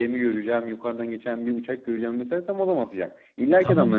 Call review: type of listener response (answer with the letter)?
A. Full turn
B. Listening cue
A